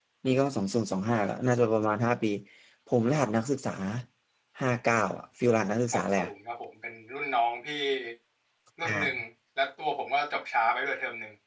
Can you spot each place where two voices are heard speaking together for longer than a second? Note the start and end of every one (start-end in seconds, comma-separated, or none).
none